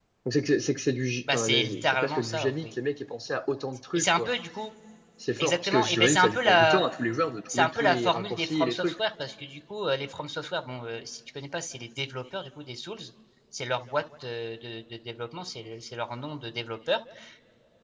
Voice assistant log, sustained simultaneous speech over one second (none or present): present